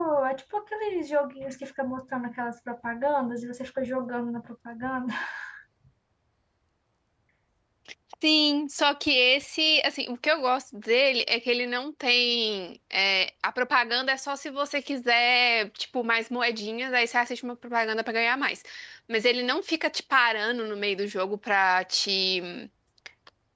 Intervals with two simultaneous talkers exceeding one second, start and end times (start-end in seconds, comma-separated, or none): none